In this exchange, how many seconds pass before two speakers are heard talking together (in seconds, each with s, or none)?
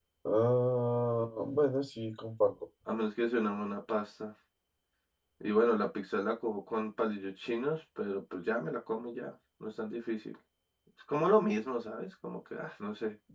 none